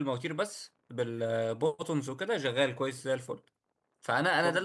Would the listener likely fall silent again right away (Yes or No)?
Yes